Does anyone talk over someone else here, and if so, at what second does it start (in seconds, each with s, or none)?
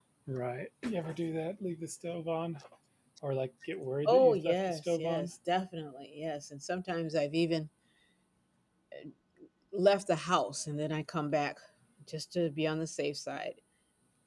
4.0 s